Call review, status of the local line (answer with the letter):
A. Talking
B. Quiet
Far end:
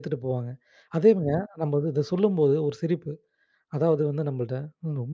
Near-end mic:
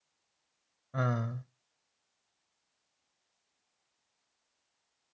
A